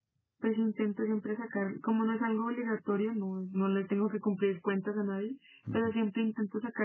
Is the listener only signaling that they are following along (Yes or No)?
Yes